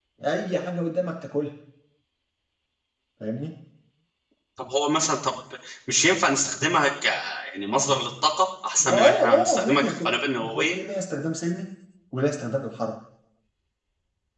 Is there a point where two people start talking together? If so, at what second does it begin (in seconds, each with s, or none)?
8.8 s